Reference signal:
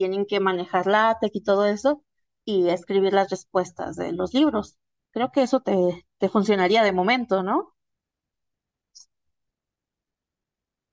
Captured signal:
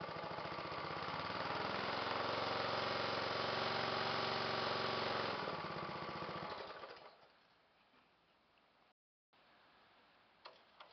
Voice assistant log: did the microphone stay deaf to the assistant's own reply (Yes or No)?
Yes